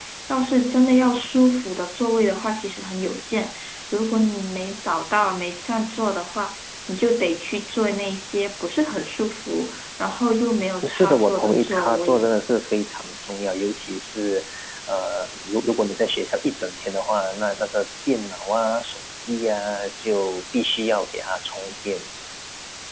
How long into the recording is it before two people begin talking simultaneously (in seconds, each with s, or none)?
10.8 s